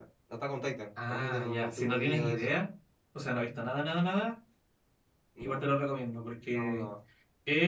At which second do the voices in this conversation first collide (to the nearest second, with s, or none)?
1 s